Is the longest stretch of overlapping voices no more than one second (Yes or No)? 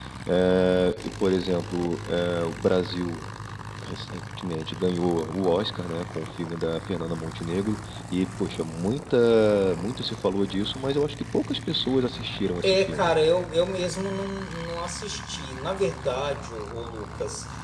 Yes